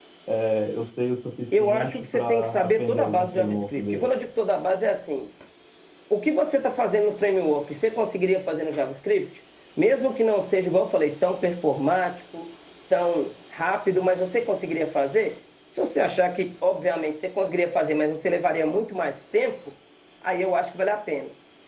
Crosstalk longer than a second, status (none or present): present